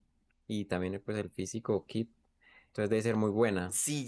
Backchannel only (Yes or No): No